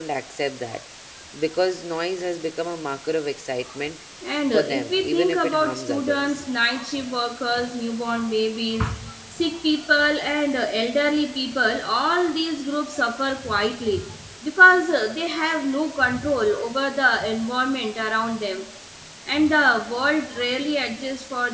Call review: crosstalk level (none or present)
present